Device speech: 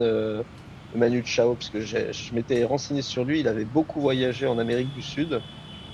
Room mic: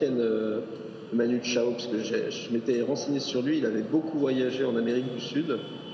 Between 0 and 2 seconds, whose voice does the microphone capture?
echo only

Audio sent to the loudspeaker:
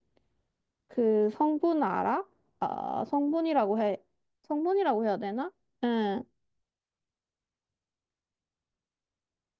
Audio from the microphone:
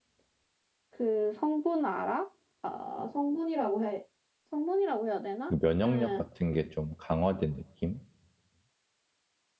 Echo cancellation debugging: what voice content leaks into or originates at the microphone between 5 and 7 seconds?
both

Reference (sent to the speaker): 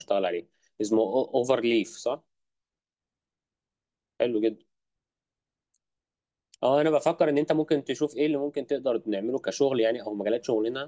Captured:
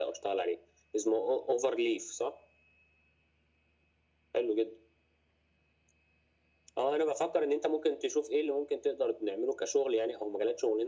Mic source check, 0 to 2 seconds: echo only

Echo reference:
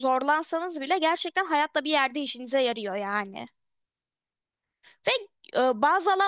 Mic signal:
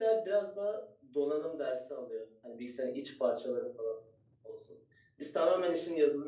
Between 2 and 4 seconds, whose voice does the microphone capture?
user only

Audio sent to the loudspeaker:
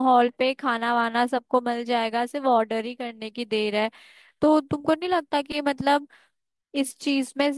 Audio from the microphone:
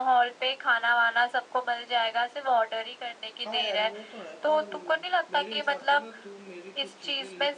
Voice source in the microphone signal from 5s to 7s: both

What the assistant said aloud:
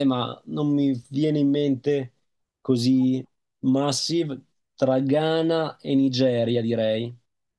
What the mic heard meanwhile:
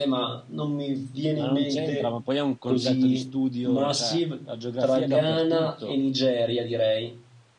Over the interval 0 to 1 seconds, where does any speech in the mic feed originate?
echo only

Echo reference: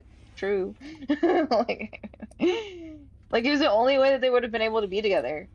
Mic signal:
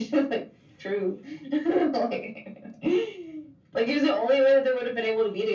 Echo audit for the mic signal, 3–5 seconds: echo only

